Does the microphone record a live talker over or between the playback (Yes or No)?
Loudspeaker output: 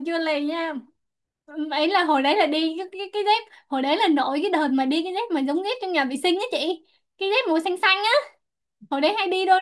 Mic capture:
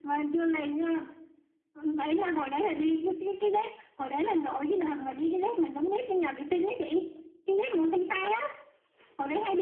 No